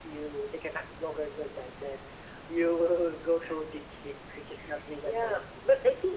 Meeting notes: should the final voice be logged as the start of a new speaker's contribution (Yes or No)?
Yes